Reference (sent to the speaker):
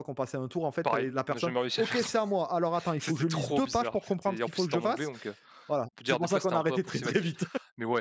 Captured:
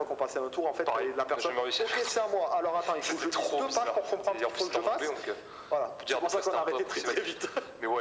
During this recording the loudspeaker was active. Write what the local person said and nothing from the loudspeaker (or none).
none